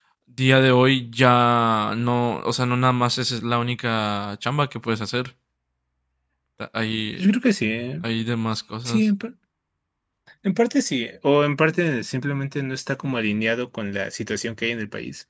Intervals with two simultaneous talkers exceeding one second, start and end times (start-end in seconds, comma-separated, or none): none